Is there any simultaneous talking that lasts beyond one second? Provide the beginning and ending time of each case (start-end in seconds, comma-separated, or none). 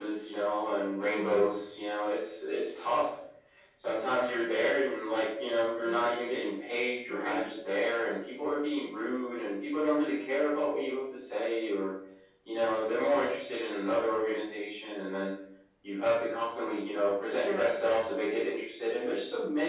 none